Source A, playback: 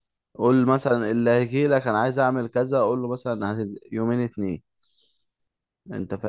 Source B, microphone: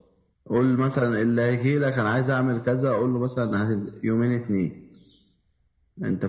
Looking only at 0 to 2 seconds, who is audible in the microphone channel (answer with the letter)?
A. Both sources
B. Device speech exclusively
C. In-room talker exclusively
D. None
B